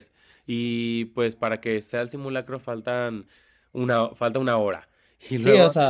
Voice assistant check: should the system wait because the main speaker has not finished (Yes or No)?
No